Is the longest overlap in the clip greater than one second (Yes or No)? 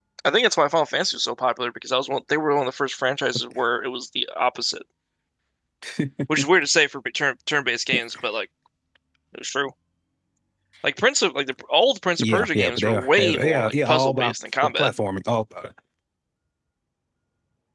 Yes